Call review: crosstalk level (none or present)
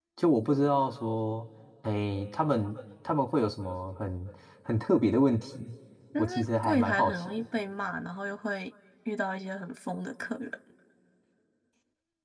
present